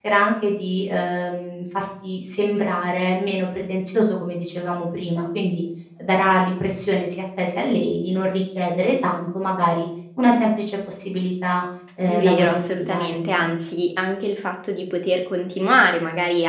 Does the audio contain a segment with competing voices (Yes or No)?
Yes